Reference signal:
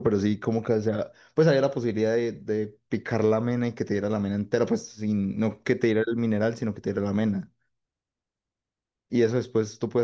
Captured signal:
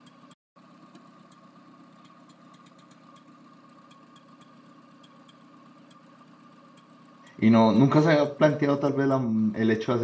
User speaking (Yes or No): Yes